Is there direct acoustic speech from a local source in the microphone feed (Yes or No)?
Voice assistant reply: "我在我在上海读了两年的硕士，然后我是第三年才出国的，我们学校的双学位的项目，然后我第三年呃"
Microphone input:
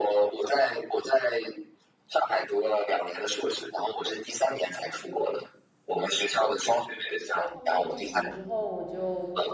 Yes